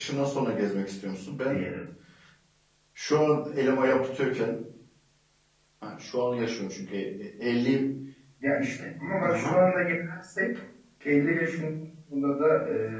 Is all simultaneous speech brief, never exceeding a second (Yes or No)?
Yes